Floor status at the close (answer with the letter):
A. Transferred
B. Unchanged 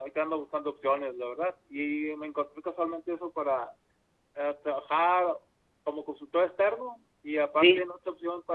B